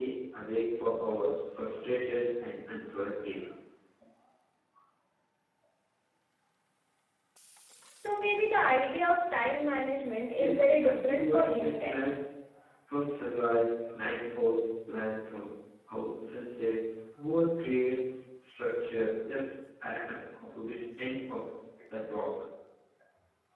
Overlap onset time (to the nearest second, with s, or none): 10 s